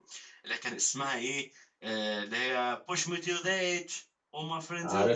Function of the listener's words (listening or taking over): listening